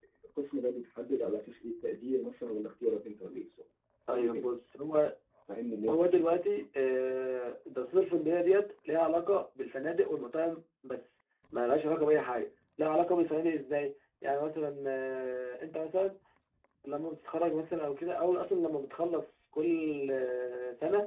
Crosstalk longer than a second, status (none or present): none